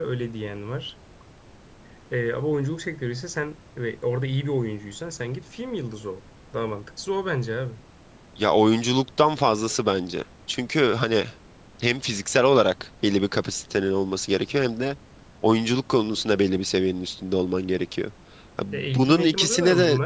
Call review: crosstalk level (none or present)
present